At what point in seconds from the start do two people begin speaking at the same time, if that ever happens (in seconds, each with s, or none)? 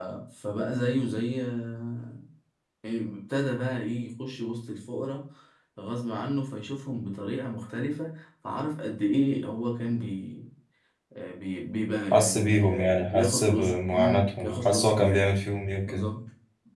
12.1 s